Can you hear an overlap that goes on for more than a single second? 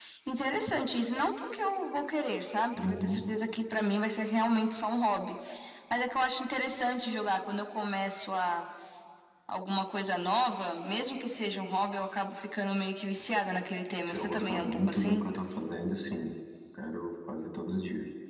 Yes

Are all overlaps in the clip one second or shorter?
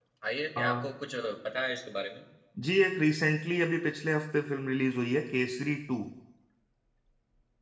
Yes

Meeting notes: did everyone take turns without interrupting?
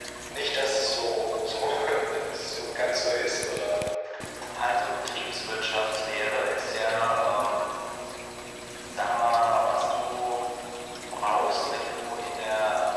Yes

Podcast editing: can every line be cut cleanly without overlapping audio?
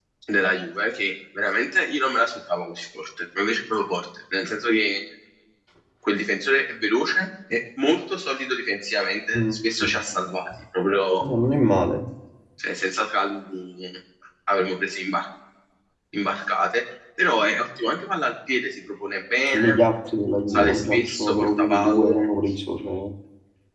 No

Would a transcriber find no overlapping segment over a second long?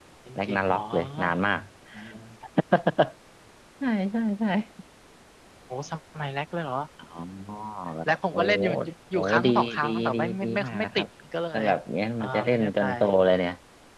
No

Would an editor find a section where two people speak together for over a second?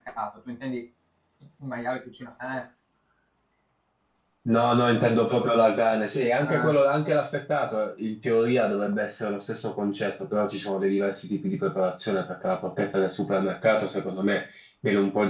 No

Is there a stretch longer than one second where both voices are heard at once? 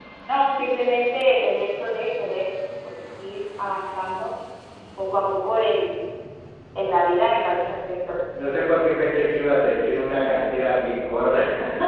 No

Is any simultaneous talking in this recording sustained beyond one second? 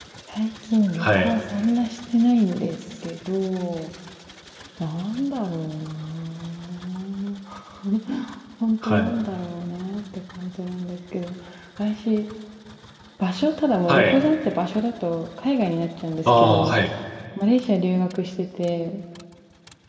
No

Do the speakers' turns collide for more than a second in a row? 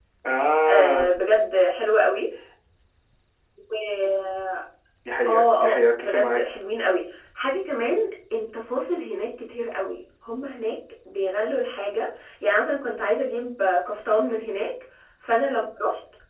Yes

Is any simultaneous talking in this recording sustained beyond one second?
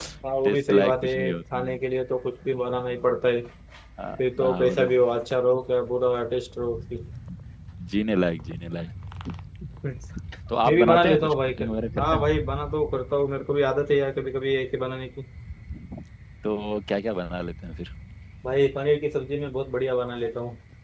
Yes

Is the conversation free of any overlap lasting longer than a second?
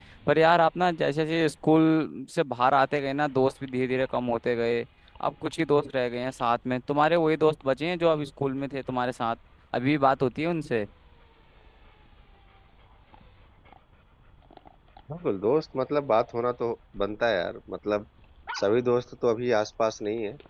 Yes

